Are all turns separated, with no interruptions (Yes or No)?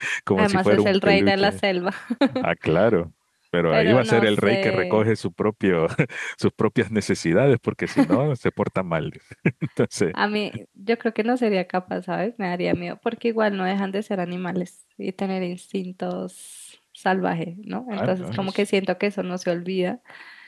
No